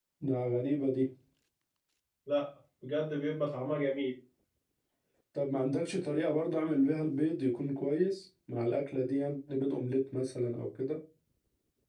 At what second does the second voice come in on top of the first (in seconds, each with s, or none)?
none